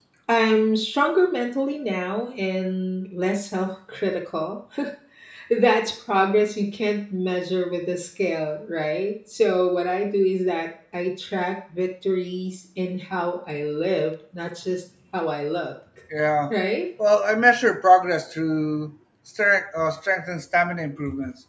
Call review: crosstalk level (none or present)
none